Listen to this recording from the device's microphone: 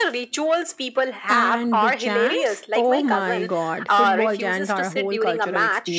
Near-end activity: present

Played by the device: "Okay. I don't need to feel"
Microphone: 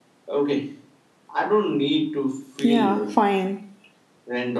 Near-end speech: present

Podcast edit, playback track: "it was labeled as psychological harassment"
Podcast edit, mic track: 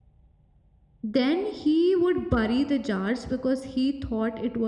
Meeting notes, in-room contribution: present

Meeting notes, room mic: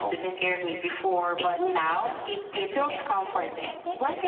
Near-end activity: present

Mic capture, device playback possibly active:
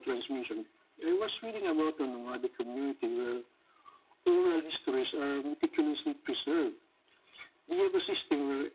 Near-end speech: none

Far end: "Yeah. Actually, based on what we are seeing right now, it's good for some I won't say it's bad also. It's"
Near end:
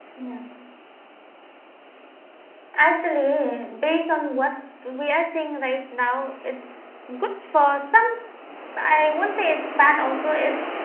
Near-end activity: none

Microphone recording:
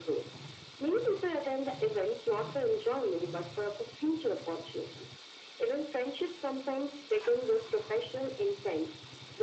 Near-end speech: none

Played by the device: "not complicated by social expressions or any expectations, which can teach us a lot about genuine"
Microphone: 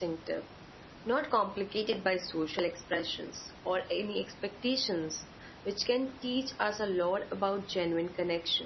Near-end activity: none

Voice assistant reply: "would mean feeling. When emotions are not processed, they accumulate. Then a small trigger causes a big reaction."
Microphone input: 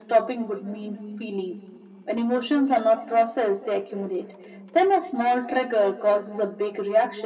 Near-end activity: none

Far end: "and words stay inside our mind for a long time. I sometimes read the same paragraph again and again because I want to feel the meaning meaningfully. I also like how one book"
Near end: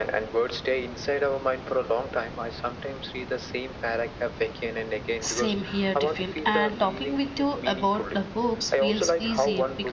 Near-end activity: present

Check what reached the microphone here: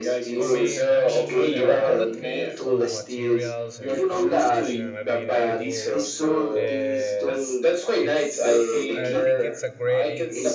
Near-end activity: present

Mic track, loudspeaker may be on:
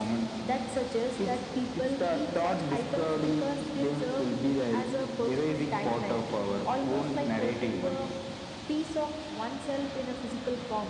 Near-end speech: none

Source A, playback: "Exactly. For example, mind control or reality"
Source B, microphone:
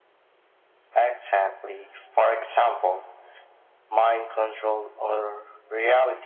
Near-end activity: none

